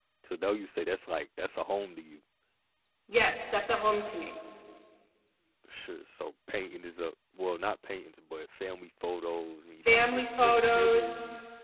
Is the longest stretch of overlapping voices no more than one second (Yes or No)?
No